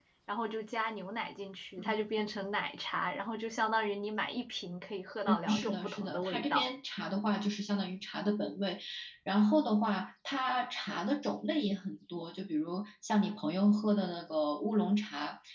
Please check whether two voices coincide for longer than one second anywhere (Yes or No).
Yes